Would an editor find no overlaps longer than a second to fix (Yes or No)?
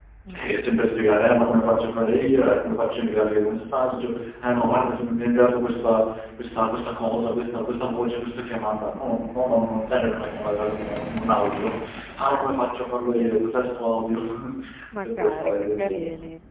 No